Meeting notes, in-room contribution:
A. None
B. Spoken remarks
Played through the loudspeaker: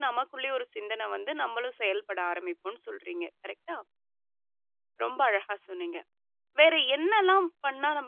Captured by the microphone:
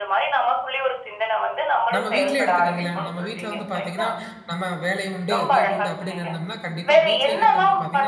B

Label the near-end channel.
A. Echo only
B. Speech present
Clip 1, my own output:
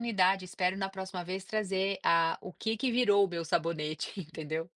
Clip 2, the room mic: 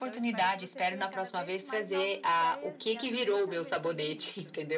B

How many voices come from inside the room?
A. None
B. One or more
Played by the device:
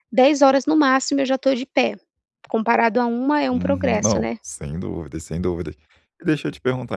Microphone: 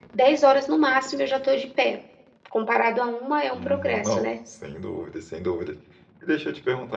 A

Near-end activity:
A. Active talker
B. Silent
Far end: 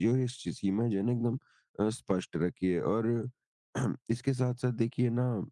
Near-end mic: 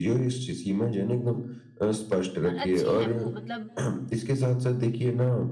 A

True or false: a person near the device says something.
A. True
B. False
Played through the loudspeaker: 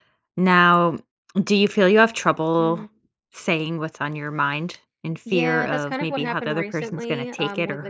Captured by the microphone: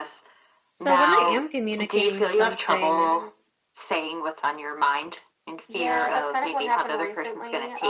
A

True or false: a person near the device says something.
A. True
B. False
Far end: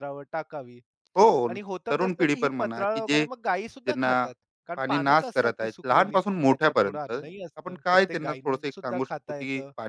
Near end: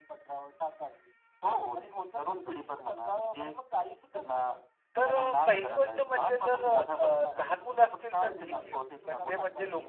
A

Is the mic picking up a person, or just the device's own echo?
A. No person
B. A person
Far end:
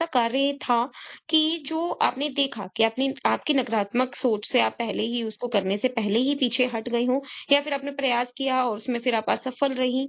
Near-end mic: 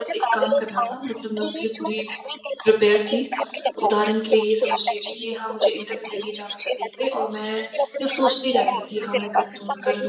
B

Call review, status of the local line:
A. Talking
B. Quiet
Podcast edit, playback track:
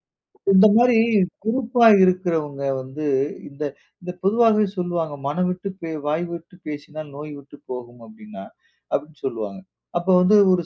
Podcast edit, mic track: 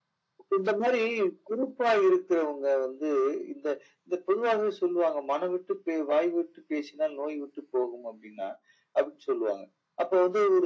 B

